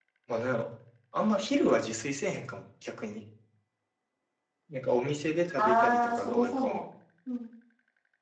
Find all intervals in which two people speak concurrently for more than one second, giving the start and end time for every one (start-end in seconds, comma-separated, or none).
5.6-6.8